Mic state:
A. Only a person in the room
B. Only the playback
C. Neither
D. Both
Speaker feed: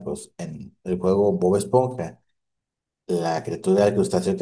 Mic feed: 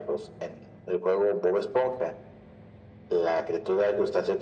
B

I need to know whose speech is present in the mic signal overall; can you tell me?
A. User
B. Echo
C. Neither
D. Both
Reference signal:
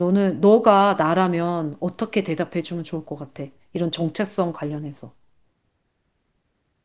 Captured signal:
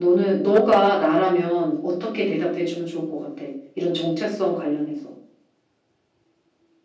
B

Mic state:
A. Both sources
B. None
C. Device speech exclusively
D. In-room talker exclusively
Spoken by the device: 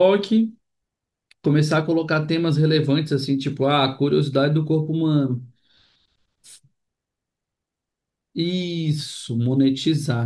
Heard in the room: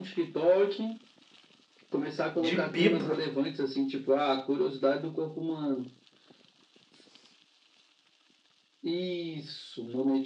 A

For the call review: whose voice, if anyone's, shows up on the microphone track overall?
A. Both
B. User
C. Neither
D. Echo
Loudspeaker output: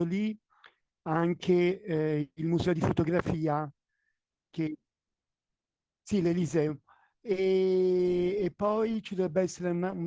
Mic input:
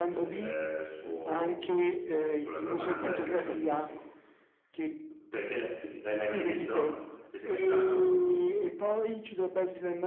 A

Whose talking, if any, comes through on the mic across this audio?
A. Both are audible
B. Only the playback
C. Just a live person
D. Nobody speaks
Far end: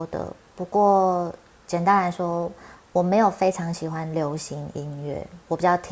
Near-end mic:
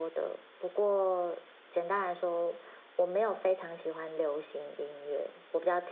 B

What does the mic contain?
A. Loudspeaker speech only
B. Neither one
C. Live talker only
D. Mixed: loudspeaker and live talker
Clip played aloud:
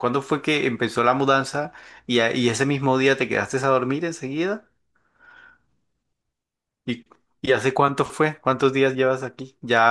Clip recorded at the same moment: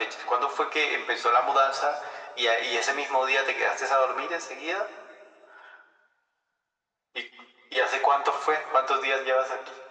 A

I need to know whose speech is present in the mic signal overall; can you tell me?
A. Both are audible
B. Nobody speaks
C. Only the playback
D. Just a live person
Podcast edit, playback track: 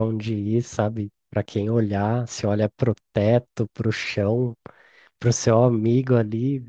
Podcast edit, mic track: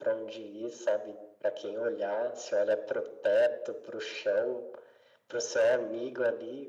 C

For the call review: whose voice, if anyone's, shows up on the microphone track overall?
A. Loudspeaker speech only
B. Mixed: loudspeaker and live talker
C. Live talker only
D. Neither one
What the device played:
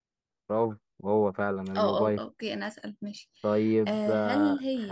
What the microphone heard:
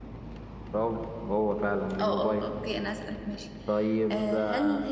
A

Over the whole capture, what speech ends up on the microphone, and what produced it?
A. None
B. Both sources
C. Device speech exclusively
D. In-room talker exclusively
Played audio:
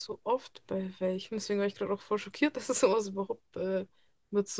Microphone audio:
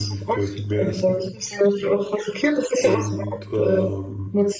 B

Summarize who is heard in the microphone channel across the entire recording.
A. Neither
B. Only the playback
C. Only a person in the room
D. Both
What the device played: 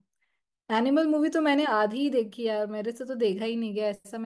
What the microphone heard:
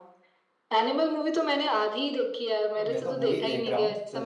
D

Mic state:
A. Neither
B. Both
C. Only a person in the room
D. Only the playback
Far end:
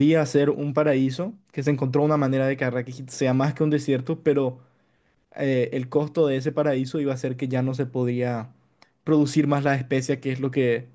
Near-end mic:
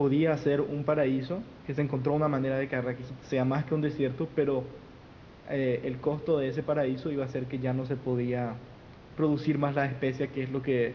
D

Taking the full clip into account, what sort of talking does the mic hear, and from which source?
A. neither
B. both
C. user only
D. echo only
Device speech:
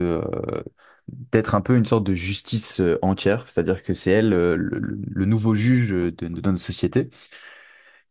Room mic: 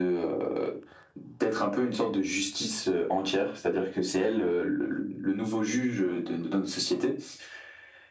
D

